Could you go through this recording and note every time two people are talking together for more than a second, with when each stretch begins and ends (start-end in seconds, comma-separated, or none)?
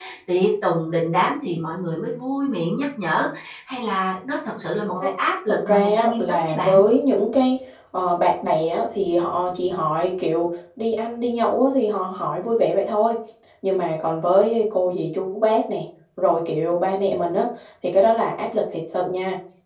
5.5-6.8